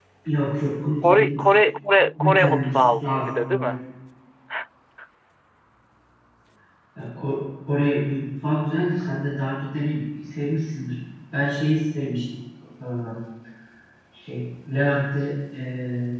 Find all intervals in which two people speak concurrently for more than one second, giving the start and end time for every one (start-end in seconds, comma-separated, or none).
2.2-3.8